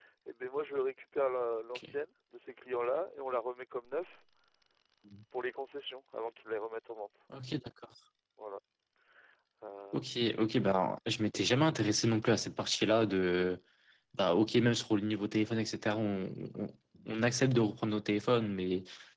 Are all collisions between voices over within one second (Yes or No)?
Yes